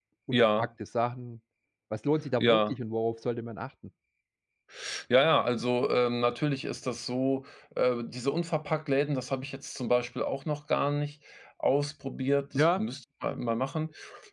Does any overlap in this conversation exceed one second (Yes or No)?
No